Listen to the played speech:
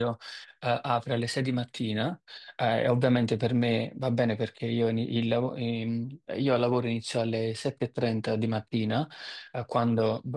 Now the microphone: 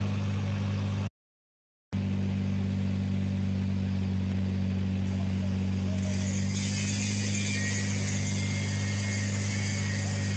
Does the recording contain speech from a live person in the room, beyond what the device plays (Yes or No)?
No